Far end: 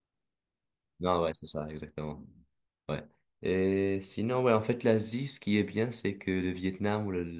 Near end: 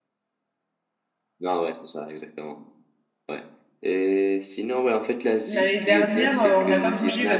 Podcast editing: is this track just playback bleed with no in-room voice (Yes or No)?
No